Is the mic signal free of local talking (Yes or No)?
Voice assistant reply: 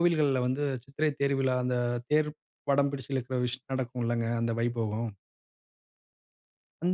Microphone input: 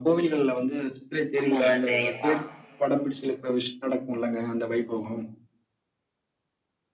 No